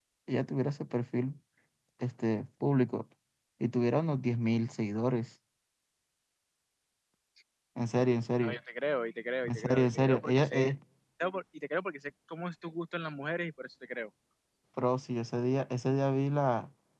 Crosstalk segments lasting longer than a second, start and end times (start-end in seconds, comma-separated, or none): 9.5-10.7